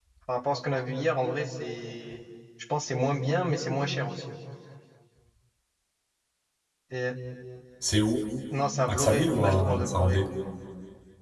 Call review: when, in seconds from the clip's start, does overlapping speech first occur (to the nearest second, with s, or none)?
9 s